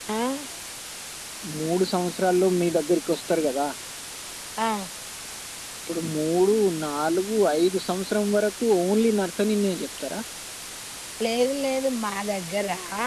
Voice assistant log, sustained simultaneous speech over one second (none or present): none